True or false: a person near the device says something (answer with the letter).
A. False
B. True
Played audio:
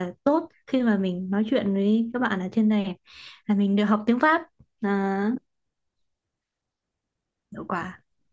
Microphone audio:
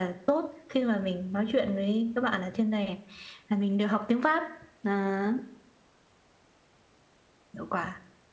A